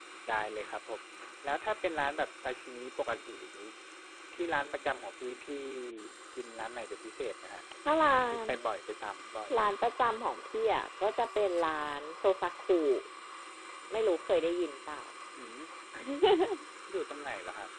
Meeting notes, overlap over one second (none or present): none